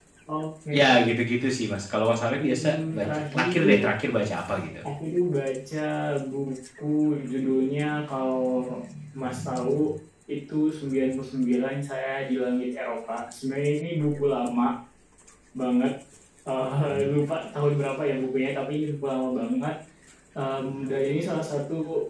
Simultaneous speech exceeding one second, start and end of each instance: 2.4-3.9

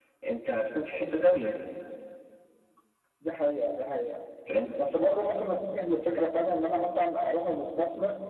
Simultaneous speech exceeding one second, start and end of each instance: none

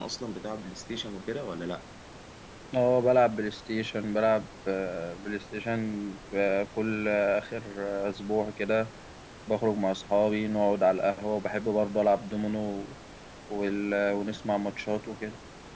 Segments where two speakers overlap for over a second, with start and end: none

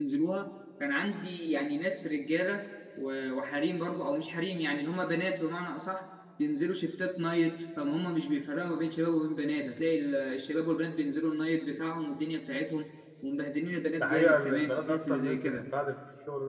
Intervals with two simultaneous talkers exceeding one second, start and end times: 14.0-15.7

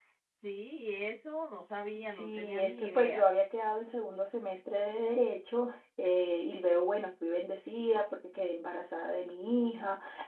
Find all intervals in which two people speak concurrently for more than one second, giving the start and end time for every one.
2.0-3.3

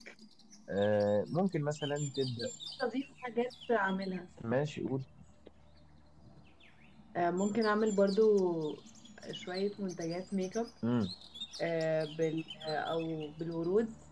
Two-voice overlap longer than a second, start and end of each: none

